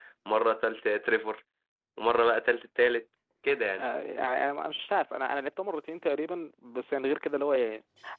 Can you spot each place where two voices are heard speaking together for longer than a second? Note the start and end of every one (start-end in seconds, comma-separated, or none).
none